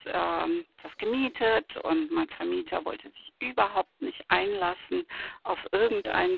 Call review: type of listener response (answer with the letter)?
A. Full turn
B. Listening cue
B